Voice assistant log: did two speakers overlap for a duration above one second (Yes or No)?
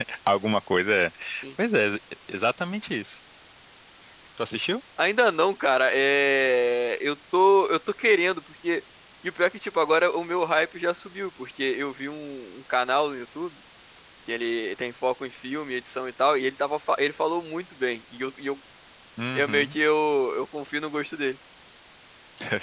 No